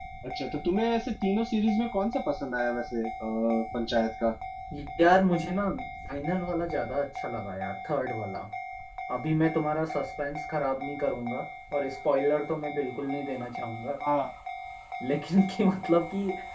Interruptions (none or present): none